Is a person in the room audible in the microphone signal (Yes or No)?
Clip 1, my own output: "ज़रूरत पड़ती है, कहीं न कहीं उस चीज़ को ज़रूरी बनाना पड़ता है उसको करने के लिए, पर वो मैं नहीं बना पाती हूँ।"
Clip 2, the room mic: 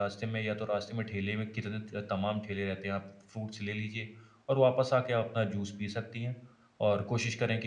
Yes